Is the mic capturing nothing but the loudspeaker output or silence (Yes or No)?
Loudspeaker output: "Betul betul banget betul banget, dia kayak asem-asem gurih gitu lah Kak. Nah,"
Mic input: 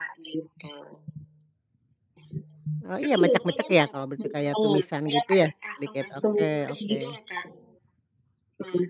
No